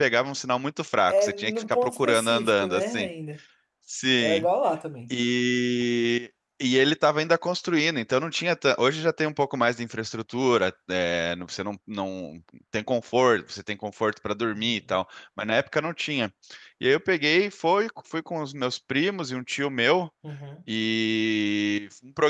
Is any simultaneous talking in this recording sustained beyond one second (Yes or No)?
Yes